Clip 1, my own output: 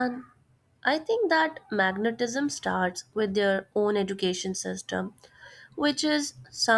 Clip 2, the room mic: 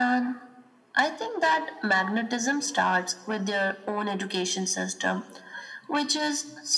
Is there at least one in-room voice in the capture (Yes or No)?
No